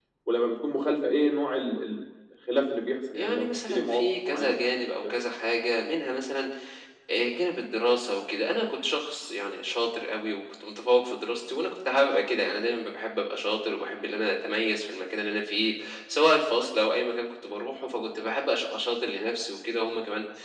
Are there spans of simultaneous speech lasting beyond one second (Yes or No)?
Yes